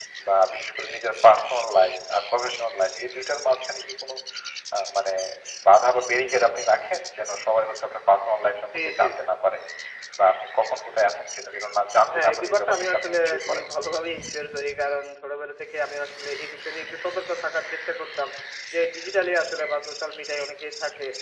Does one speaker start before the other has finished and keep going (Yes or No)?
Yes